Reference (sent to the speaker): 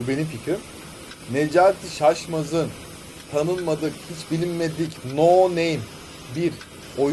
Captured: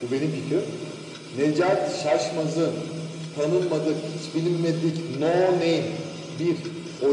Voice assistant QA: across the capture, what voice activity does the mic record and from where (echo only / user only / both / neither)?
echo only